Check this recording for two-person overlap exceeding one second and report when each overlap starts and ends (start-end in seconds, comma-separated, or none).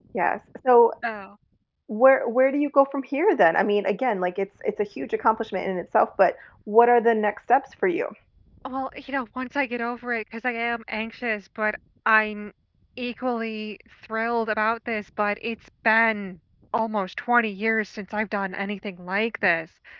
none